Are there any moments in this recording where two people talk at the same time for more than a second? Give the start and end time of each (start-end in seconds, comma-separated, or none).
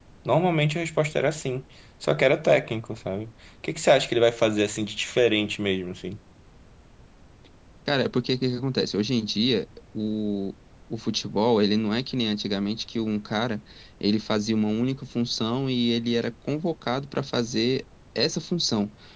none